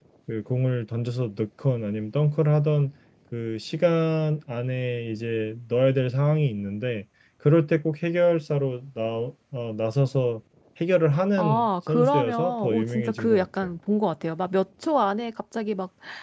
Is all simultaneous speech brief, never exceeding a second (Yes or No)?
No